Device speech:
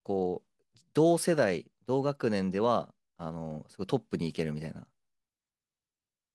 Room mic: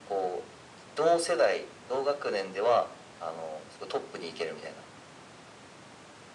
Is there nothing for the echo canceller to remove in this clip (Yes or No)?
No